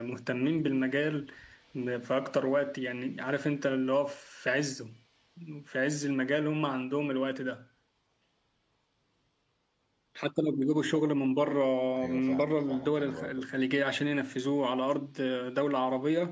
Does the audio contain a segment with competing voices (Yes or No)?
Yes